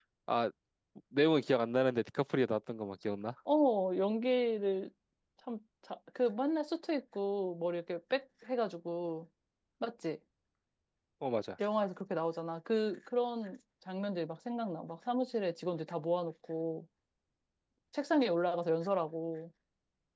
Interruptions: none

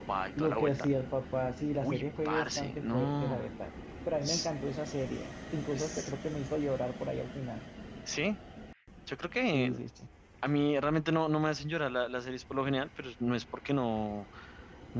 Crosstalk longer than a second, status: present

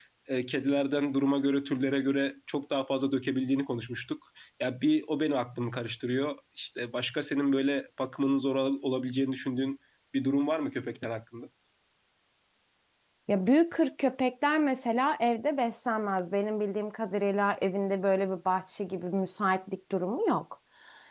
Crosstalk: none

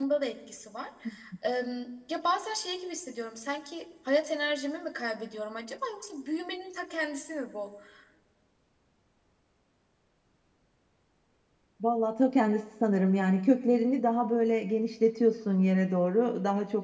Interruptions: none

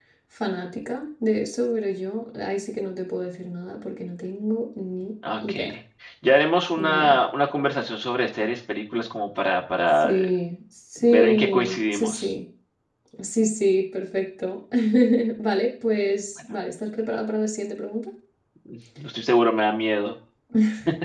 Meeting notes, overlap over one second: present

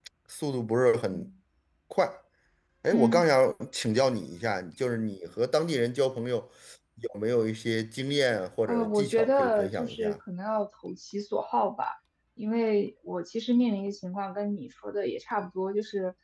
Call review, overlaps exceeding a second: present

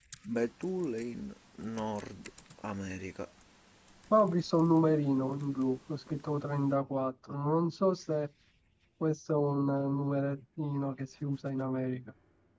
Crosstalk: none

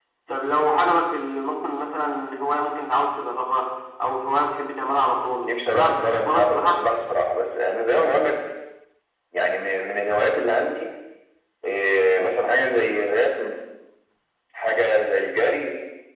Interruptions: present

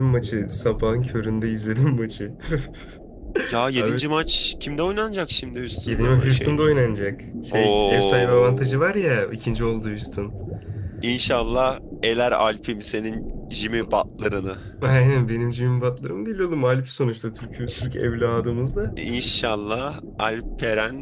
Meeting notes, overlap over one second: present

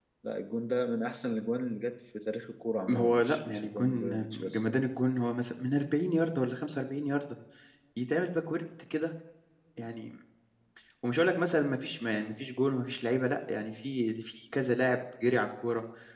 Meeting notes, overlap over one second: present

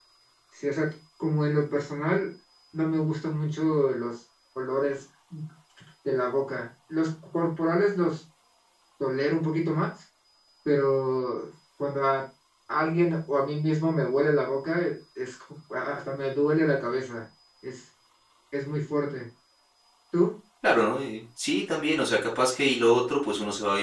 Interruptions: none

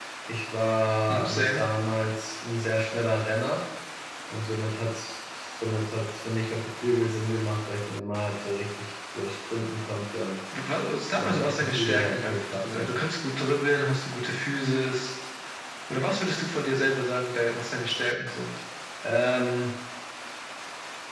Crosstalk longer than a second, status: present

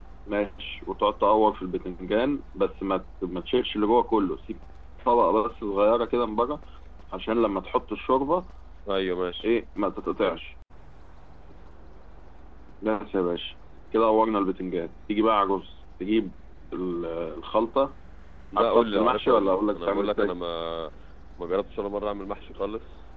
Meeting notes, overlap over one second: present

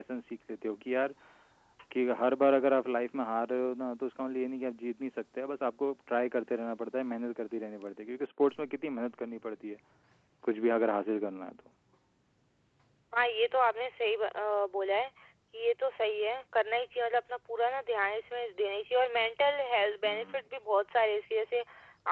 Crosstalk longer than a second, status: none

